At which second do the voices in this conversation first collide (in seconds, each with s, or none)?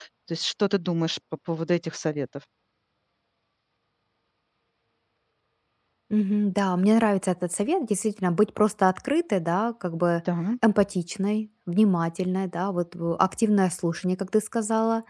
none